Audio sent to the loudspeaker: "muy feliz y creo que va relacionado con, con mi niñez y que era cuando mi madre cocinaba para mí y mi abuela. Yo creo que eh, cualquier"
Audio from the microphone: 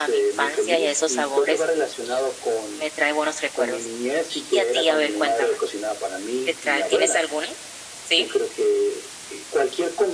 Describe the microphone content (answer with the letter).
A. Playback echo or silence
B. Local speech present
B